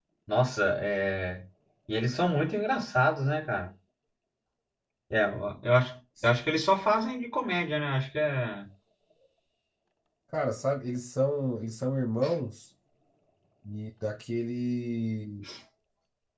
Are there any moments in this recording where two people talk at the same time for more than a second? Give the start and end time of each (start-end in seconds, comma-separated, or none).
none